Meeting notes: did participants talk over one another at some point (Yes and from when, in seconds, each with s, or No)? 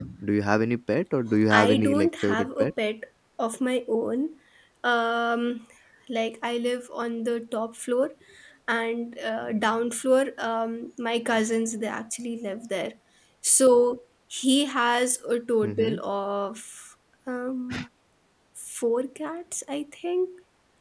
Yes, from 1.5 s